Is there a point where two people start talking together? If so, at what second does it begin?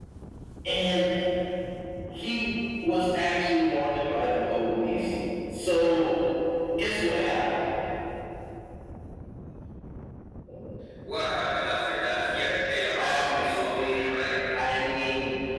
13 s

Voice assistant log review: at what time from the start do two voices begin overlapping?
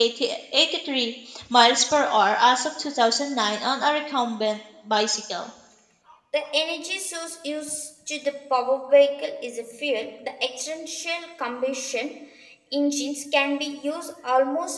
none

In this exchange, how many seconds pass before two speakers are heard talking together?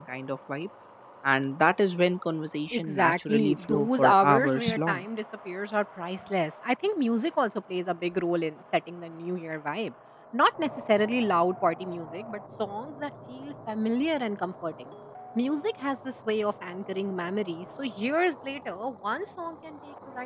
3 s

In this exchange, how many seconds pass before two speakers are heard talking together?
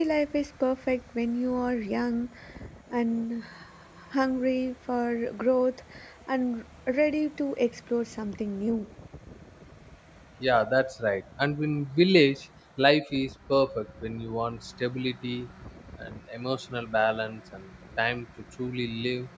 none

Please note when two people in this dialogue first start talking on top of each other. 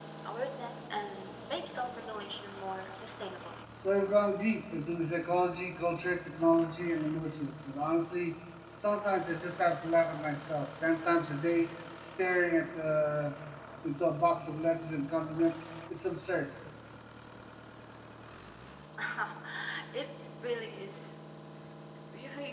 none

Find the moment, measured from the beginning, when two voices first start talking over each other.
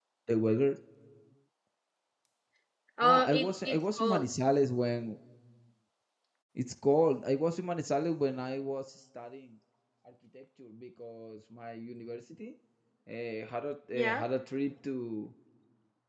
3 s

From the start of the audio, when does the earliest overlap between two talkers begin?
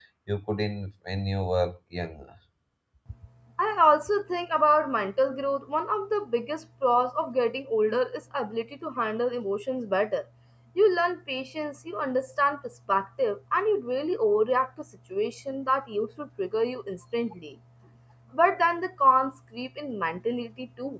none

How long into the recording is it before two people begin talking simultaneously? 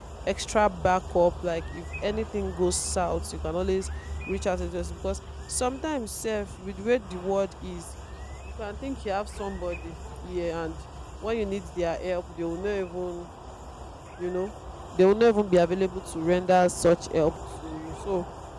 none

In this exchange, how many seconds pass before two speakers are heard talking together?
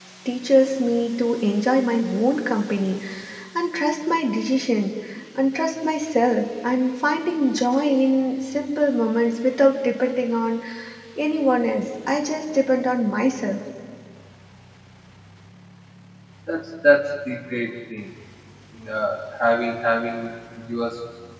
none

